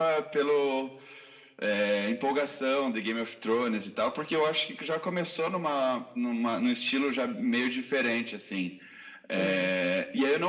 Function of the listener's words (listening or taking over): listening